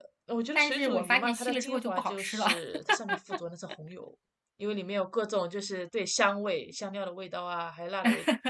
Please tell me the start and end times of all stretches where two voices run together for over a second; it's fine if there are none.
0.6-2.5

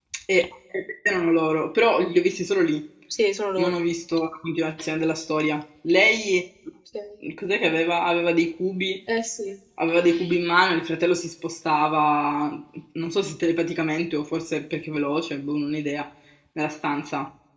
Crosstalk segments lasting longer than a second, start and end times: none

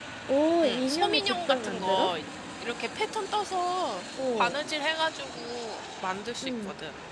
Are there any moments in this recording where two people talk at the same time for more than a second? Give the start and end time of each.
0.6-2.1

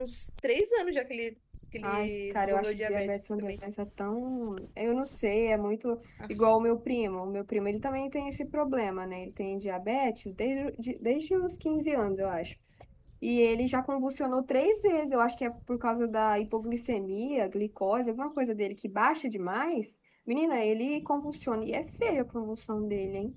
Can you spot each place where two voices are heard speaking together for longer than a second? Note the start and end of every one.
1.8-3.5

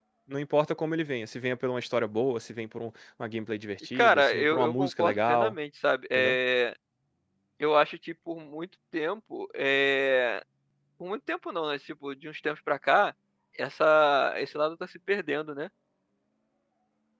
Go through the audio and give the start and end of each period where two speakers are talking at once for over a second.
3.9-5.5

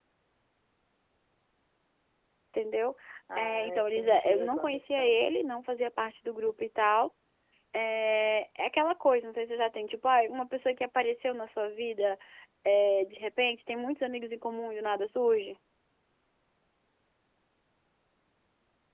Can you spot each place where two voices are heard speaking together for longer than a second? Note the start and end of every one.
3.4-5.2

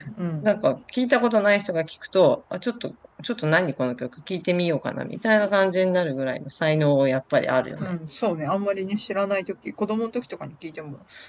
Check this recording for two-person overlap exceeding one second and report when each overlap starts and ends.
none

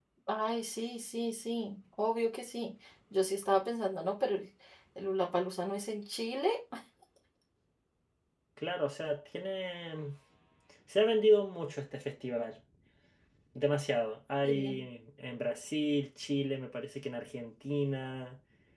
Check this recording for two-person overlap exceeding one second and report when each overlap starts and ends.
none

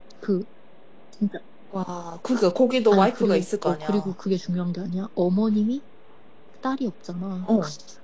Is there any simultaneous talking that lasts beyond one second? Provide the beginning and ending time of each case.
2.9-4.1

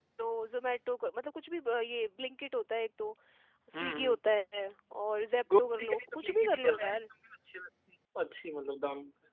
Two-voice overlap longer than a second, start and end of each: 5.6-7.0

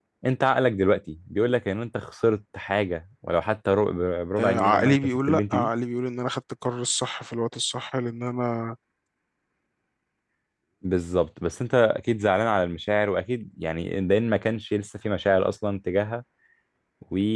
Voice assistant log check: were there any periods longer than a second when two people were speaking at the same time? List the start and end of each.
4.4-5.7

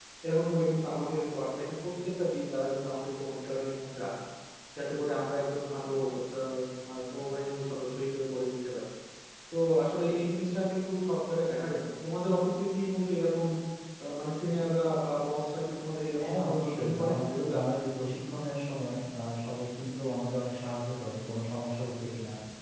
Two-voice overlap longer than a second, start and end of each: 16.2-17.6

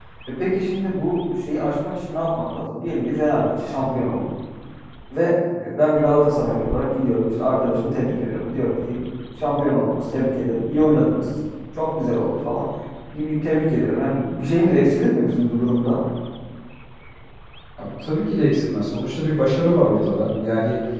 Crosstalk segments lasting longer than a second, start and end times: none

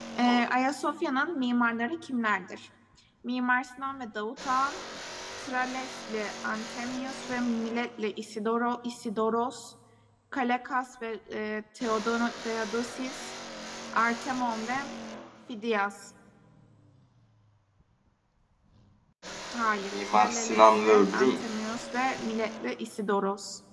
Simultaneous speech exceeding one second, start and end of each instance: 19.7-21.4

